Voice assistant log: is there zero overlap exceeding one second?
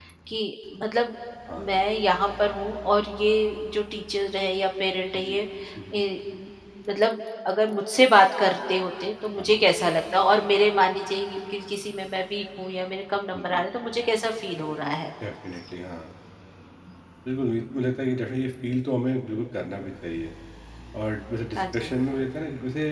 Yes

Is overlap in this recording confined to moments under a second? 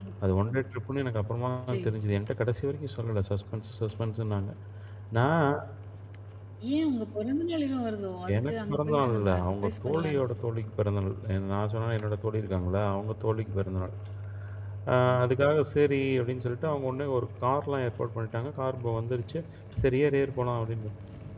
No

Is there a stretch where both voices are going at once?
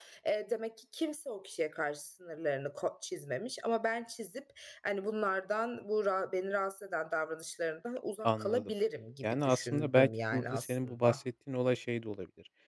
Yes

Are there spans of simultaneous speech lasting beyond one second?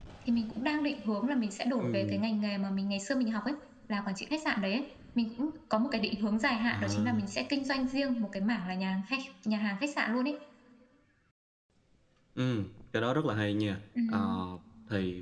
No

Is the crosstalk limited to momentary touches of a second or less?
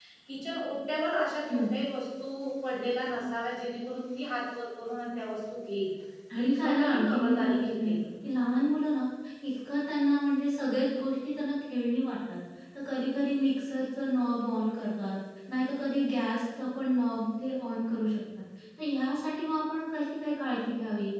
No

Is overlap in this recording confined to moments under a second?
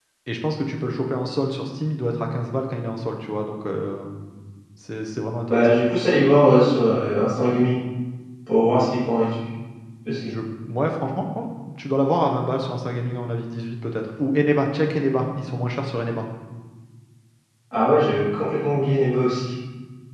Yes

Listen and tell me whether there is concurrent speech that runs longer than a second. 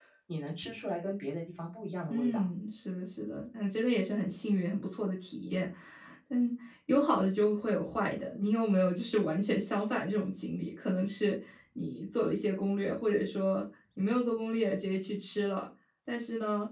No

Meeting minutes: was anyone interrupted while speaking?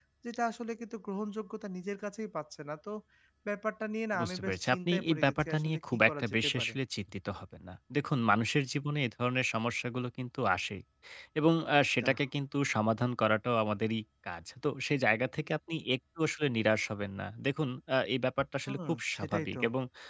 Yes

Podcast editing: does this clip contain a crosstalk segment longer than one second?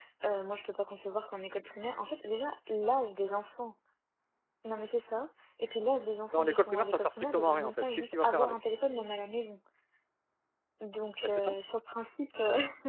Yes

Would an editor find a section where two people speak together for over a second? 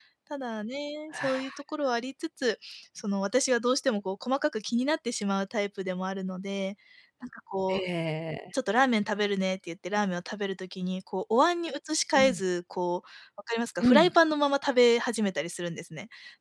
No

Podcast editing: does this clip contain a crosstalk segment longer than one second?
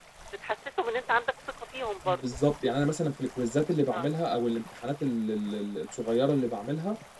No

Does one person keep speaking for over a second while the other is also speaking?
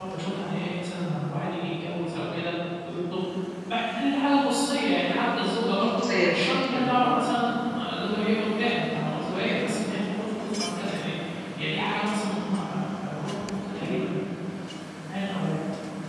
Yes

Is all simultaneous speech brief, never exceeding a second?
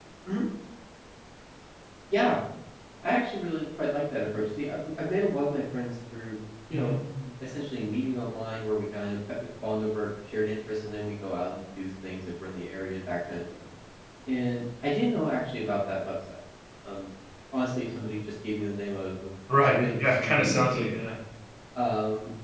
No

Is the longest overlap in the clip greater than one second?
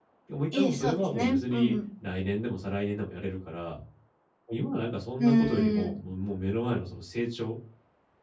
Yes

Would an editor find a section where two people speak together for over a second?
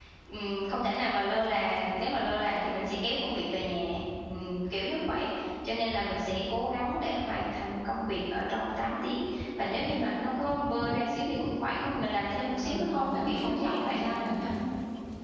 Yes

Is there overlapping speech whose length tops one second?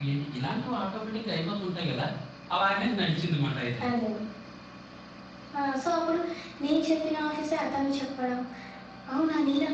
No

